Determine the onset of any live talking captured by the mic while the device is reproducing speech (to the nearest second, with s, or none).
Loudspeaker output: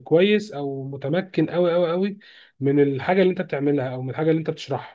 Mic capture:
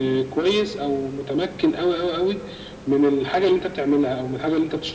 none